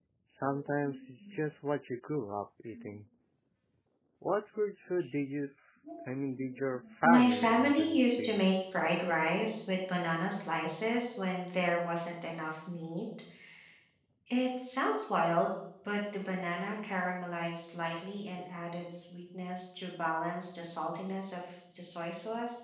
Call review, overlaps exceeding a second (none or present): present